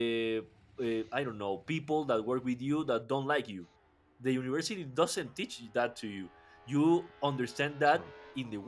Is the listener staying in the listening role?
Yes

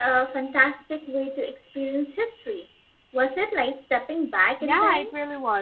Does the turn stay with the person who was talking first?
No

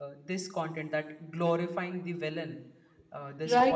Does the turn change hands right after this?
Yes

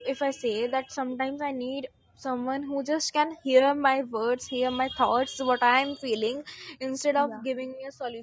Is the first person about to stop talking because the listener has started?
No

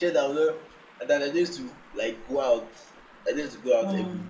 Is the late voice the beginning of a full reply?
No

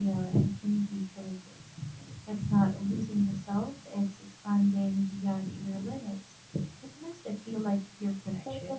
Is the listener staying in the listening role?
Yes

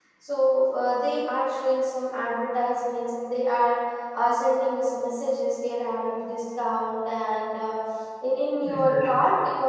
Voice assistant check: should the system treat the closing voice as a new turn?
No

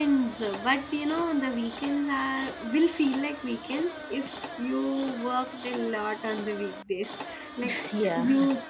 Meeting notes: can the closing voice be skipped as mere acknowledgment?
Yes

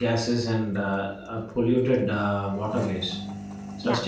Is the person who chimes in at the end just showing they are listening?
Yes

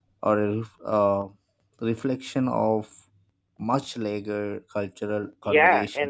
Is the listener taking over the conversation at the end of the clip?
Yes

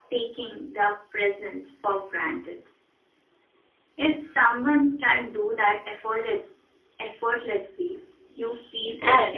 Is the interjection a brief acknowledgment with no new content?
No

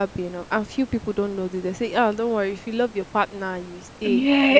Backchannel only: No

